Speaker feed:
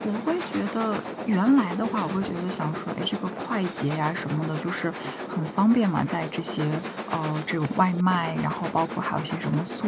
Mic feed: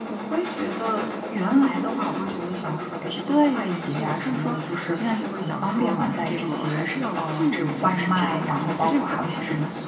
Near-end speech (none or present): present